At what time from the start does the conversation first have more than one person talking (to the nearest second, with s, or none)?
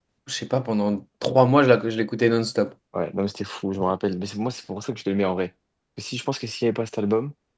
none